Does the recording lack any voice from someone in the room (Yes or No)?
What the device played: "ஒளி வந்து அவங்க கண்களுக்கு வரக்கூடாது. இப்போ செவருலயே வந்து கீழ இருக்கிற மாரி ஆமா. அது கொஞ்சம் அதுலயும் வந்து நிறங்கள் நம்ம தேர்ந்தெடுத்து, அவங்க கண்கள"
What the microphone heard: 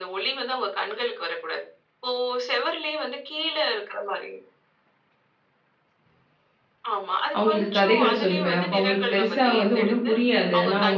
No